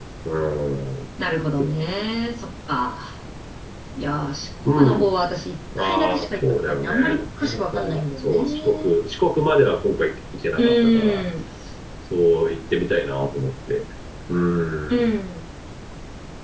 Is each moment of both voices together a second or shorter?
No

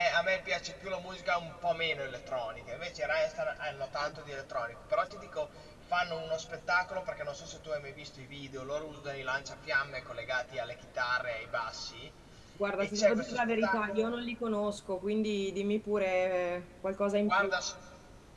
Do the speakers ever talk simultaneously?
Yes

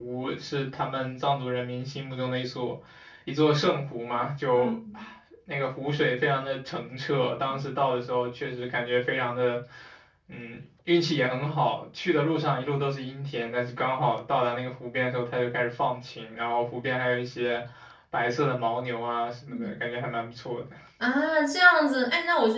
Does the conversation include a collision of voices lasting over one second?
No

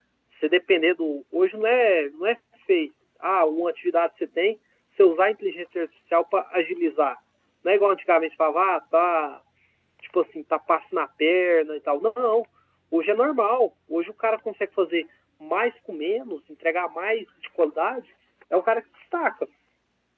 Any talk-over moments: No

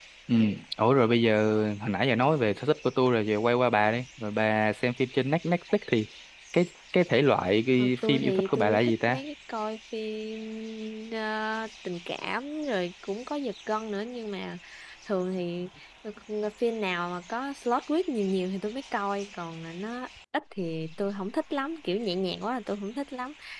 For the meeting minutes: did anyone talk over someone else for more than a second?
Yes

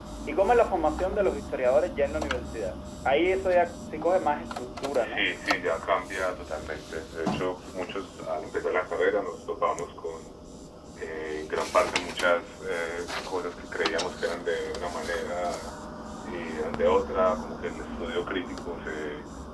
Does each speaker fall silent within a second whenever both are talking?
Yes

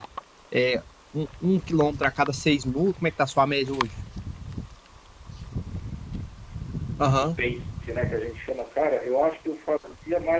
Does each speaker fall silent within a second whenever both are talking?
Yes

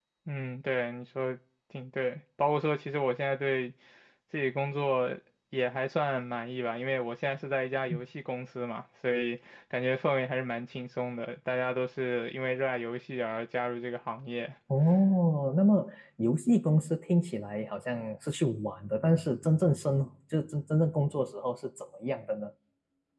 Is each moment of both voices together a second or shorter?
Yes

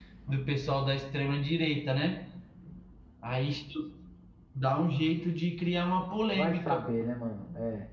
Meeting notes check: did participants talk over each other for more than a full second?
No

